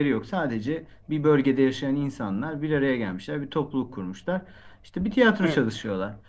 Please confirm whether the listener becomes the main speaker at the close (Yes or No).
No